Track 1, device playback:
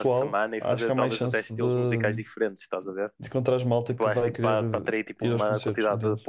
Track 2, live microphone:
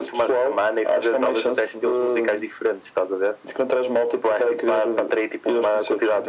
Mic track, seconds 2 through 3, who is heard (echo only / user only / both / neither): echo only